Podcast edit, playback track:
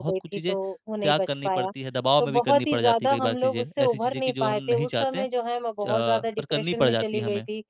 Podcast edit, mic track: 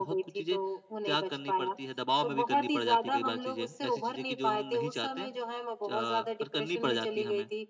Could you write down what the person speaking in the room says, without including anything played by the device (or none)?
none